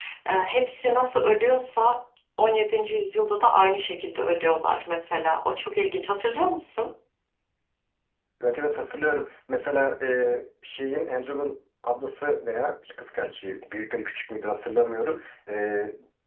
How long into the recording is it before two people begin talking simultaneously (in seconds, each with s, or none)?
none